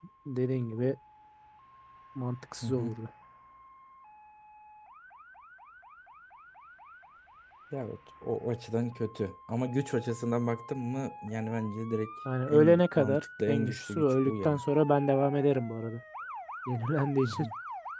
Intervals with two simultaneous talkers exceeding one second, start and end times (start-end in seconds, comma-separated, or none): 12.5-14.6